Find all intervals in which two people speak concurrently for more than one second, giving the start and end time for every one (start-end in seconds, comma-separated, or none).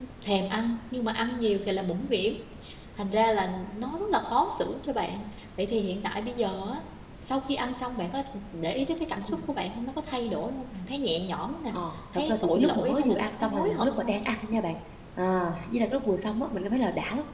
12.2-14.2